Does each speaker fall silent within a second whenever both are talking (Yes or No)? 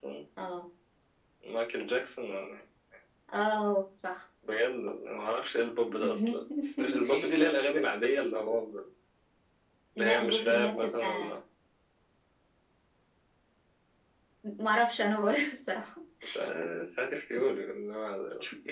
No